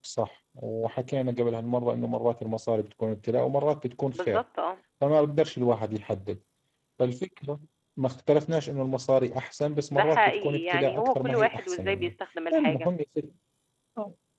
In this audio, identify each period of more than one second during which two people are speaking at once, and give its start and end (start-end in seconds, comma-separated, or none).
9.9-12.1